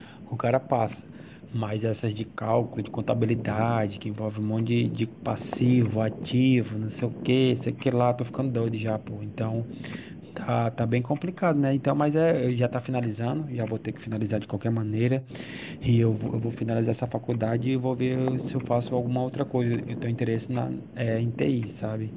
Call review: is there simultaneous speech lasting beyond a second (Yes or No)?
No